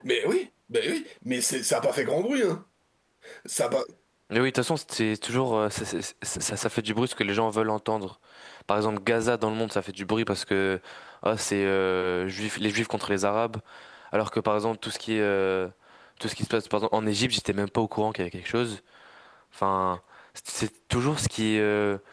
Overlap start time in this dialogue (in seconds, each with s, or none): none